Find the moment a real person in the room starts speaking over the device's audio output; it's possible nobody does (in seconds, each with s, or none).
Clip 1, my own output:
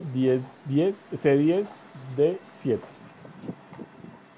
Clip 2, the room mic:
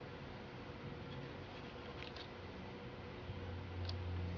none